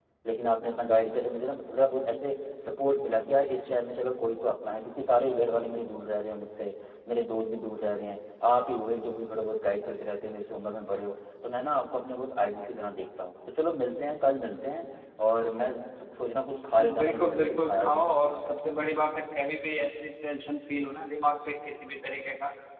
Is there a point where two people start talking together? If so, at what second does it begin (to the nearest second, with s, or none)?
17 s